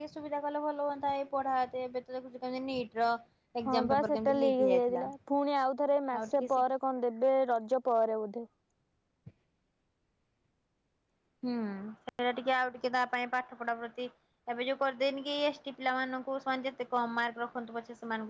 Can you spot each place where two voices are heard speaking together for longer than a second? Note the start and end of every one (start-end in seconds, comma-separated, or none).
3.6-5.0